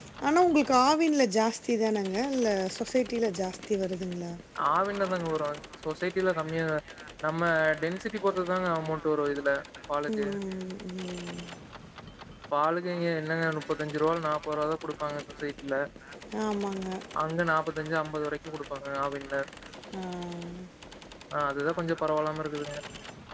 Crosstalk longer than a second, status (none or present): none